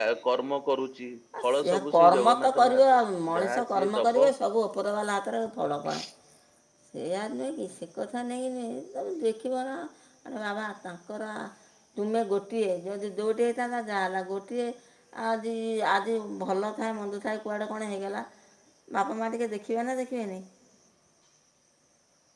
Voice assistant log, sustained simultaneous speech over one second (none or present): present